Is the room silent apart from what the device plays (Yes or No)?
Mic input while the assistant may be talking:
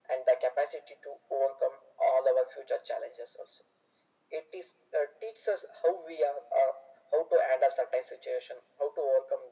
Yes